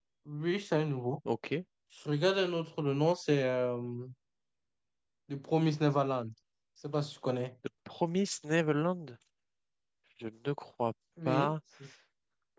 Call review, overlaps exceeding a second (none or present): none